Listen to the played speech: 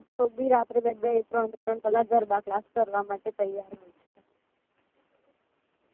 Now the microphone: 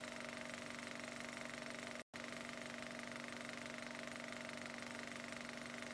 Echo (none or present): none